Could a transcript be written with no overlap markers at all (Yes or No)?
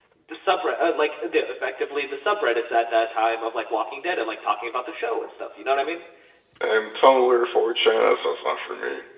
Yes